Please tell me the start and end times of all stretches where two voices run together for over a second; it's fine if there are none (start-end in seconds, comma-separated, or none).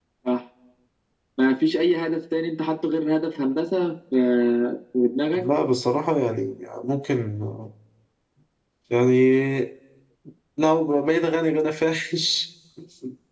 none